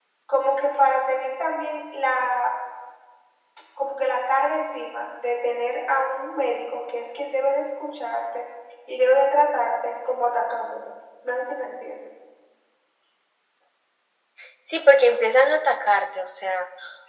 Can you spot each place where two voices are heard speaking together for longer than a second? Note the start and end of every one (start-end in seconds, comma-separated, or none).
none